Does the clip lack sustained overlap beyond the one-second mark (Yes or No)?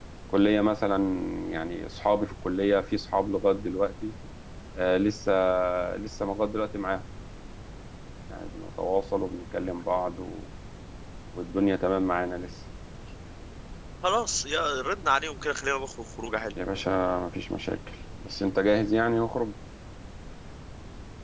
Yes